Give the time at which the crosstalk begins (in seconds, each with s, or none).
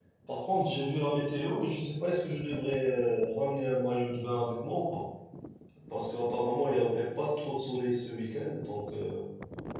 none